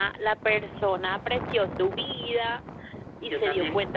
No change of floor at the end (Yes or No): Yes